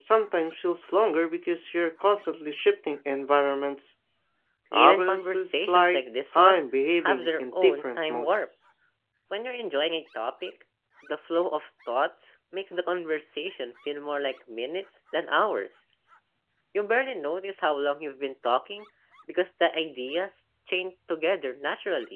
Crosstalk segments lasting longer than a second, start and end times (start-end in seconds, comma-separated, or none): 4.7-6.6, 7.0-8.5